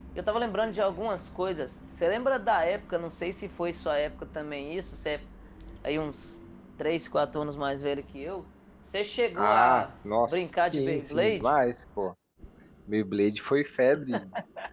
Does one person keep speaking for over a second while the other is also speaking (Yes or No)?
Yes